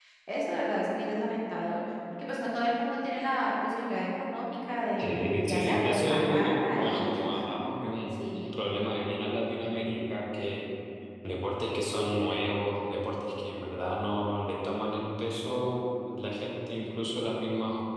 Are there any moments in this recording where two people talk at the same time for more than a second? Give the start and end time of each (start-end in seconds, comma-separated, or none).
5.0-7.2